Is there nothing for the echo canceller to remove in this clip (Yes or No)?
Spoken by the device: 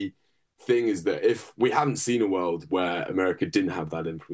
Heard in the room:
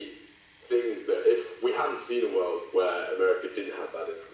No